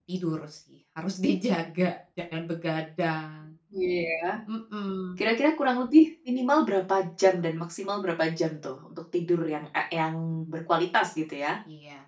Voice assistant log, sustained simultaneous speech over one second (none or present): none